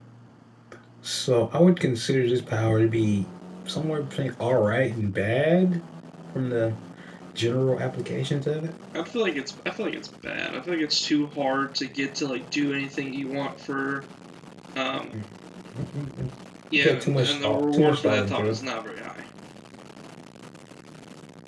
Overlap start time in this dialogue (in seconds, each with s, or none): 16.8 s